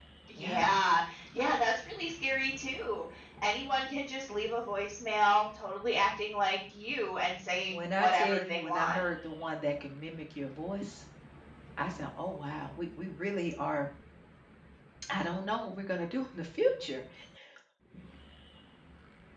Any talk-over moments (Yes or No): Yes